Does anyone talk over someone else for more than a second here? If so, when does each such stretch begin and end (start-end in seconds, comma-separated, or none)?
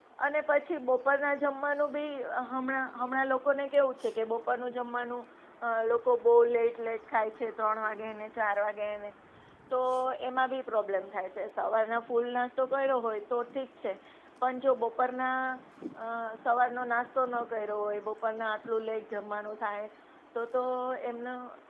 none